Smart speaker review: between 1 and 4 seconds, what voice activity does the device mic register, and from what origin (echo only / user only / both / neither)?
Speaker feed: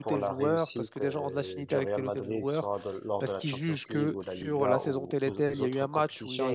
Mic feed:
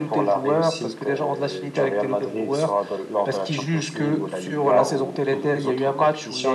echo only